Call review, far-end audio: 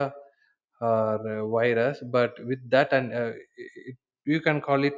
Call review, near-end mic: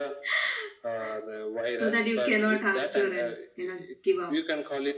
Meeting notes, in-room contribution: present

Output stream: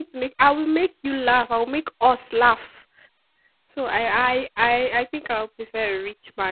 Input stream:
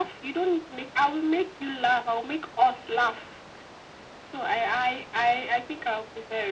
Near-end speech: none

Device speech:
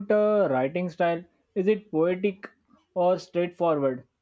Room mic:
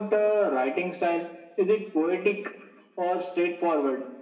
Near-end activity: none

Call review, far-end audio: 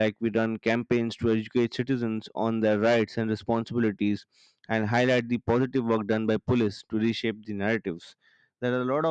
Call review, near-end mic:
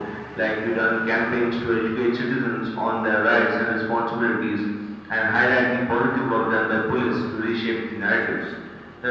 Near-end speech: none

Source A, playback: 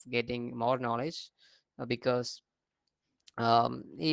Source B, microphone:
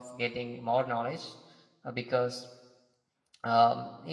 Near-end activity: none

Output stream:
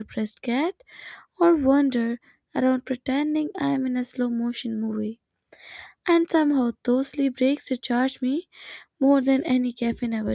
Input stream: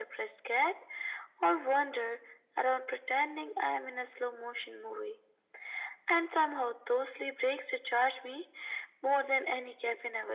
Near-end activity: none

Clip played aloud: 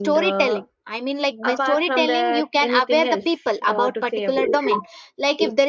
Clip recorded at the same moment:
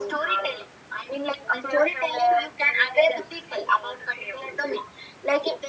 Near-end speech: none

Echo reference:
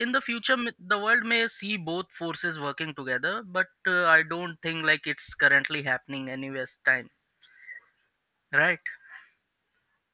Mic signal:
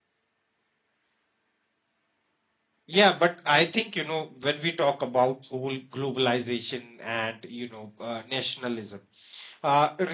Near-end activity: present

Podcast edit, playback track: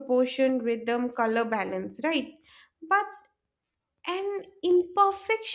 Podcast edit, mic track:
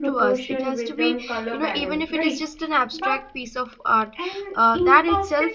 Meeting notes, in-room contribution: present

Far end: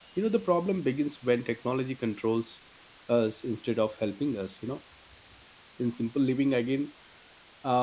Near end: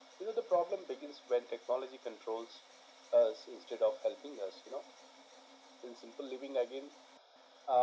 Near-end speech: none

